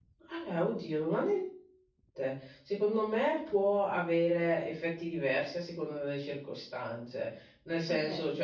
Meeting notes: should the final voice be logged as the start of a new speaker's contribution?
No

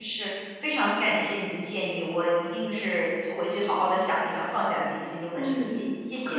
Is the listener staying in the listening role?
No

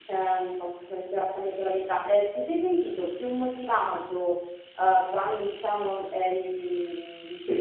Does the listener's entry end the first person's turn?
No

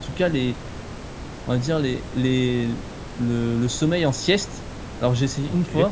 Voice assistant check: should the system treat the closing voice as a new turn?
No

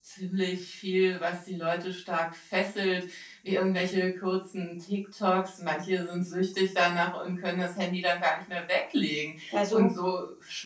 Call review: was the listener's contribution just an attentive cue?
Yes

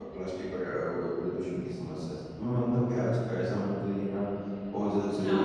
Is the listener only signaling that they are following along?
Yes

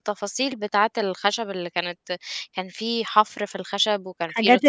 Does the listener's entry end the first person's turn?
Yes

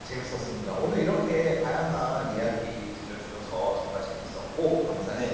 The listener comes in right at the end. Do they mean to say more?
Yes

